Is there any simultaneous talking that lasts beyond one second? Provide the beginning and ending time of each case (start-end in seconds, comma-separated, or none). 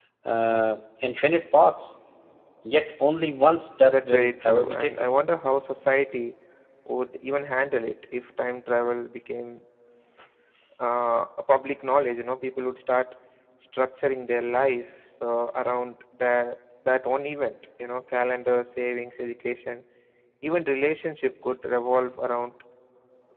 3.9-5.1